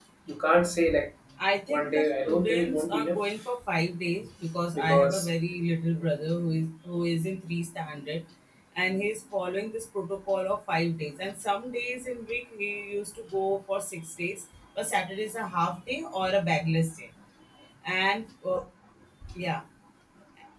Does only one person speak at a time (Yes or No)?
No